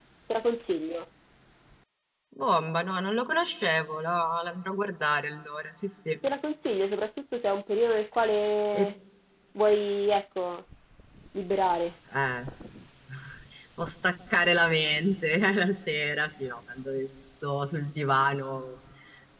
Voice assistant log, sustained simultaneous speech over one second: none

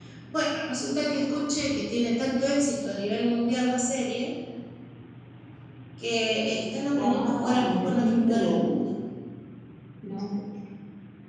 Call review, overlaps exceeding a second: present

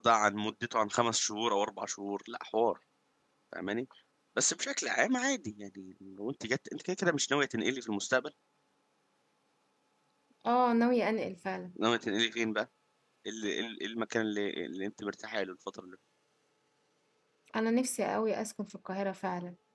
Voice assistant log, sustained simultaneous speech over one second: none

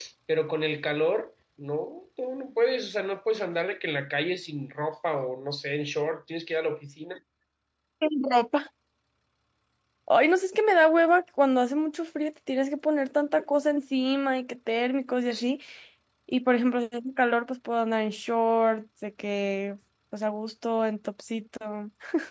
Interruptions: none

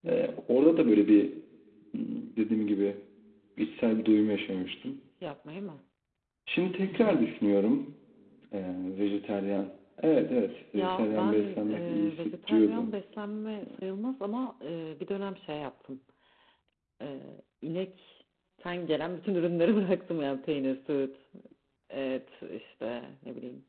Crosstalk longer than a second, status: present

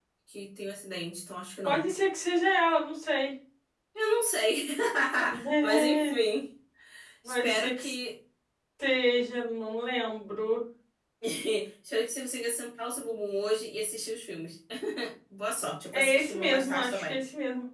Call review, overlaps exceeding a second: present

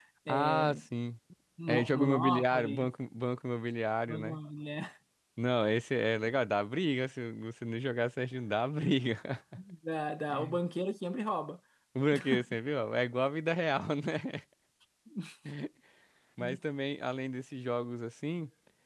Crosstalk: present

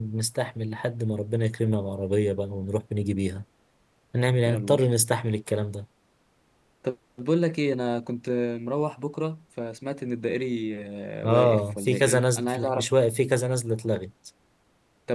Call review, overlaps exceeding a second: present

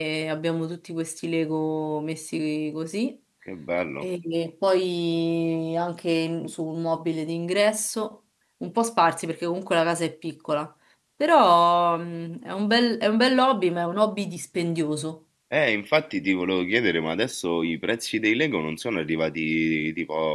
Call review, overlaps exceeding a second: none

